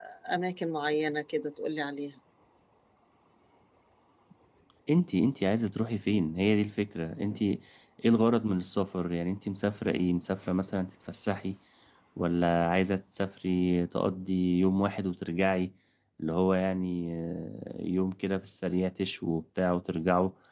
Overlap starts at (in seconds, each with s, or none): none